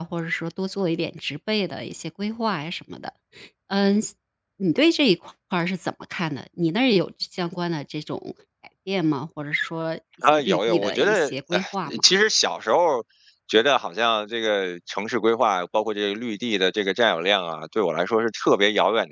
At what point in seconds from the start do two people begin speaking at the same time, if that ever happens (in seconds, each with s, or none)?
10.2 s